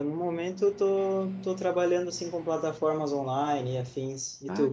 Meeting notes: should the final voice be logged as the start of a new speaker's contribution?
Yes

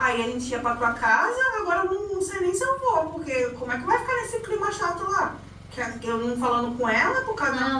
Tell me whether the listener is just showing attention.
Yes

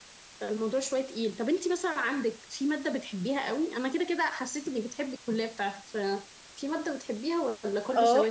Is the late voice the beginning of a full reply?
Yes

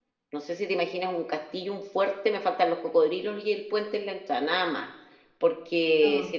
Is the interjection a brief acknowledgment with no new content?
Yes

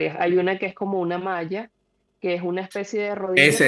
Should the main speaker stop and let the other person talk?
Yes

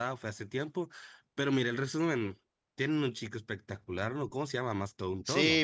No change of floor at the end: No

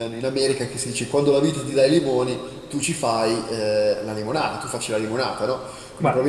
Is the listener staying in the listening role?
Yes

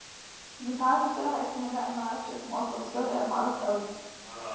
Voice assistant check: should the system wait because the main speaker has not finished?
No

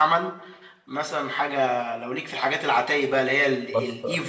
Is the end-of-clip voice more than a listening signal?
No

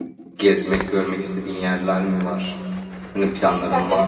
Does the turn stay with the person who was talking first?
No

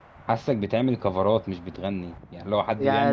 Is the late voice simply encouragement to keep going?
No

